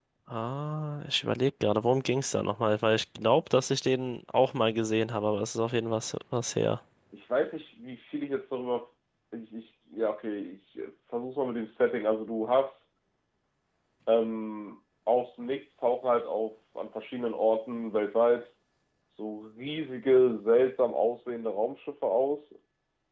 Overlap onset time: none

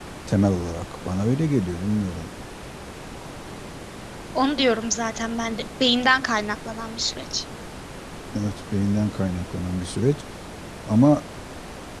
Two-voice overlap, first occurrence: none

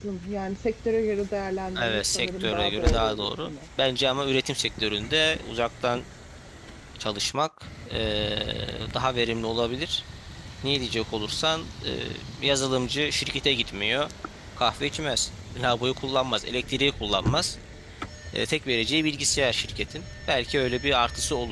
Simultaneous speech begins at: 2 s

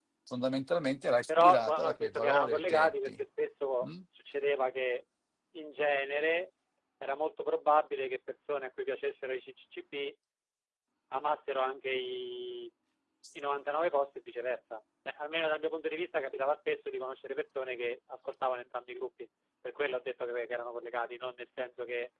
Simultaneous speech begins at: 1 s

